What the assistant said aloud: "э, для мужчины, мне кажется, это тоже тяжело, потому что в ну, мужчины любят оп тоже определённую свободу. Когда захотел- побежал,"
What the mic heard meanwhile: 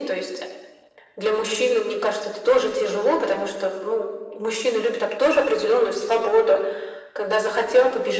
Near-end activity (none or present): none